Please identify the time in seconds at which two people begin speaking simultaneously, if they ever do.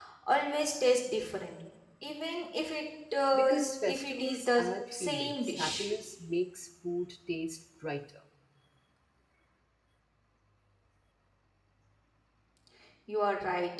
3.3 s

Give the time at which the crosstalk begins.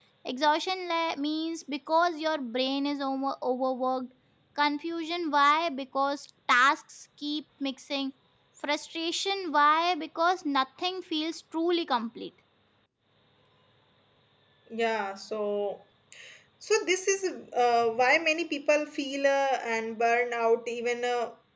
none

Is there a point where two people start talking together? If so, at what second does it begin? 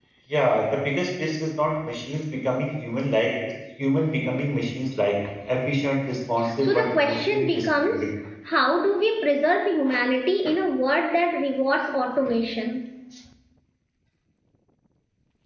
6.4 s

